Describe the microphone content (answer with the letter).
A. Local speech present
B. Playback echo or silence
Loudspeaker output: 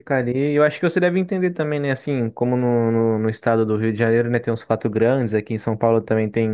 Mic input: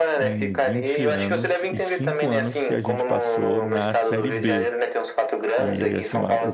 A